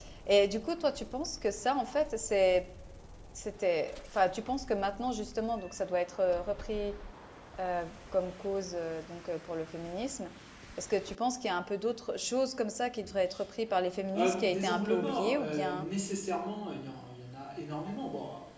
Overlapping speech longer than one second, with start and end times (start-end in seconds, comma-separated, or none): 14.2-15.9